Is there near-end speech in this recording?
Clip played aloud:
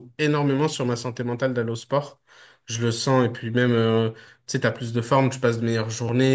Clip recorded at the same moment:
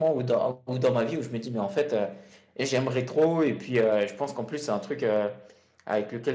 Yes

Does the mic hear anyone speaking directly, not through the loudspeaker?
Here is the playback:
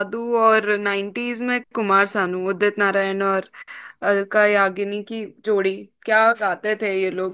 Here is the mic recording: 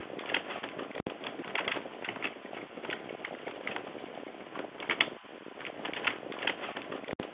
No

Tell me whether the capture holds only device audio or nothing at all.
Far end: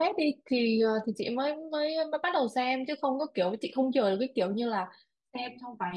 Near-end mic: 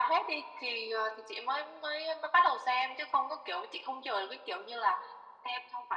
Yes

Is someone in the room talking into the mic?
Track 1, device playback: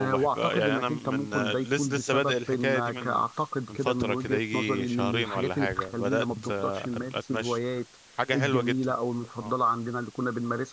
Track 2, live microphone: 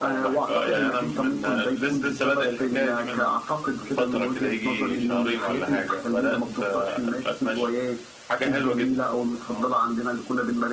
No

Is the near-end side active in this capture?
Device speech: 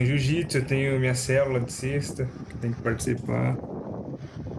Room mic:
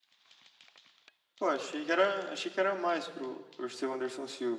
Yes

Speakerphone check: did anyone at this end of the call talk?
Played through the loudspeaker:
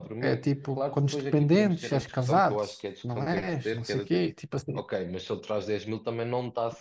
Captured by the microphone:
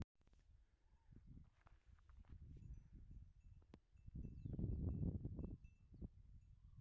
No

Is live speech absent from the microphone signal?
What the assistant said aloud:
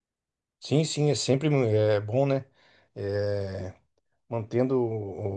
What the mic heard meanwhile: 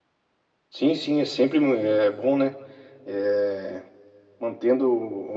Yes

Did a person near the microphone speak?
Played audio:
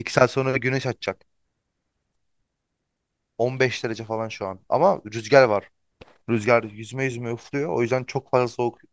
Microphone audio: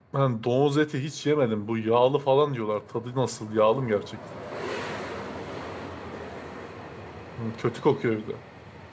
Yes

